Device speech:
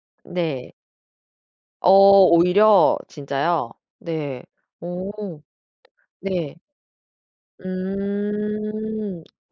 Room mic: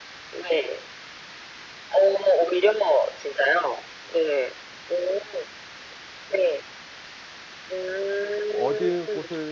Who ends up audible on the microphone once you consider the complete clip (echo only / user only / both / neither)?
both